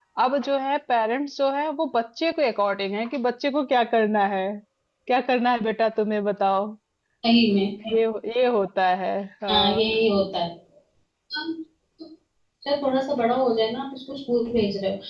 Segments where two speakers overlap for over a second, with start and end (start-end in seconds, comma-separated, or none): none